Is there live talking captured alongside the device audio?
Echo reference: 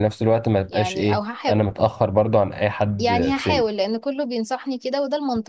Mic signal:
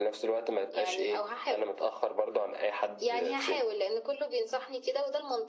No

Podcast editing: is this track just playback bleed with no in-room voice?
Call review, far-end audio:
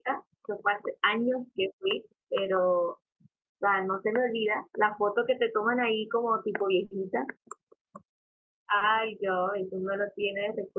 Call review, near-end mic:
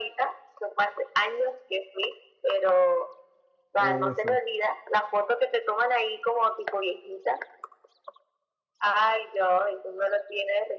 No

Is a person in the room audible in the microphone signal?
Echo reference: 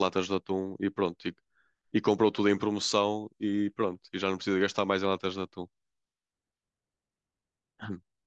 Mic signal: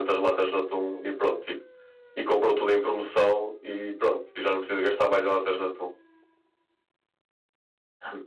No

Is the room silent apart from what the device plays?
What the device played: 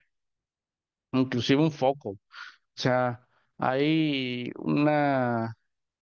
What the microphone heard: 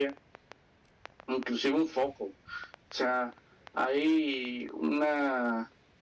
Yes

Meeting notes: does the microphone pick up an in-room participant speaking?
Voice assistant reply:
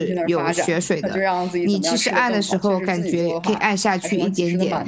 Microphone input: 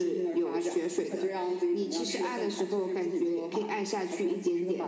No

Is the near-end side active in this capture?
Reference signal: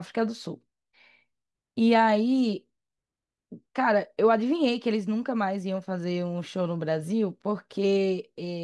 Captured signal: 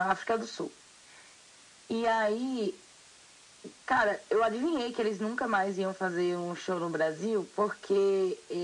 No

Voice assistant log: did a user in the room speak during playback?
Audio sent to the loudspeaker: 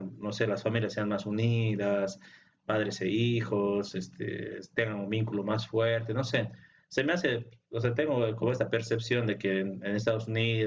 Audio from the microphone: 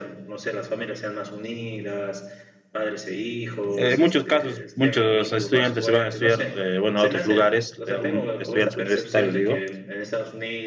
Yes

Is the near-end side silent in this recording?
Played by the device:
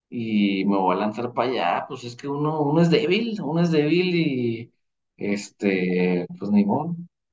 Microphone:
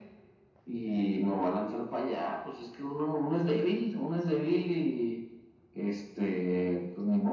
Yes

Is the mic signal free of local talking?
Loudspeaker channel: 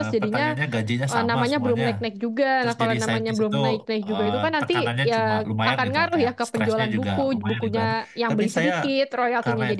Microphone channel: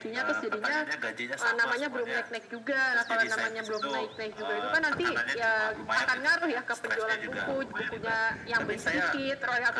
Yes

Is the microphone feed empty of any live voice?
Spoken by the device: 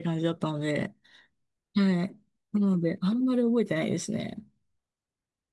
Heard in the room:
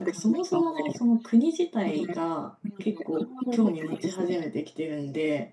No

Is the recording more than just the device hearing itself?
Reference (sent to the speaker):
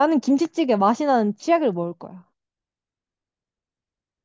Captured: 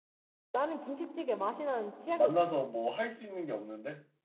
Yes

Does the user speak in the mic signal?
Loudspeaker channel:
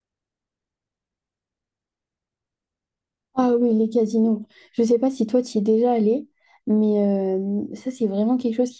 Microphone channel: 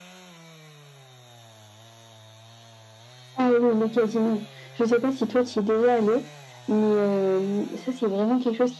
No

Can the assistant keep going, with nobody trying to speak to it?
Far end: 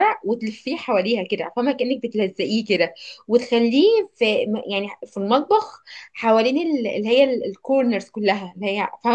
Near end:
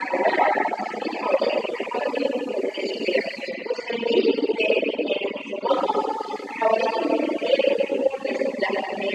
Yes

